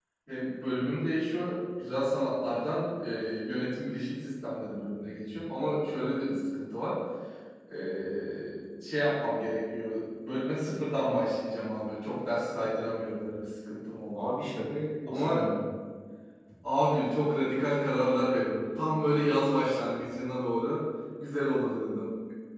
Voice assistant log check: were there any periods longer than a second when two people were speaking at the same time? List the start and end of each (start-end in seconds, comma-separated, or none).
none